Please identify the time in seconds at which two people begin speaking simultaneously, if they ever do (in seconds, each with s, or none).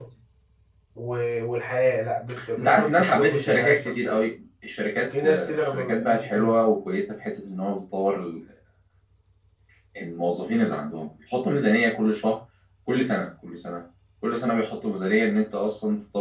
2.6 s